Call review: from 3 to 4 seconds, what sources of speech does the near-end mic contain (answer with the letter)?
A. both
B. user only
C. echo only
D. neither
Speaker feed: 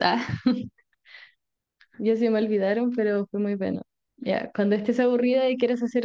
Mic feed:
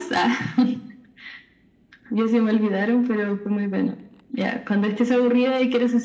C